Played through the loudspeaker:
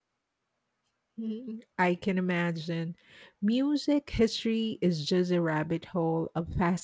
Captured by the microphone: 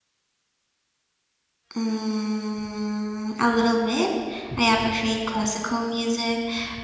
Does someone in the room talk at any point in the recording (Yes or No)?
Yes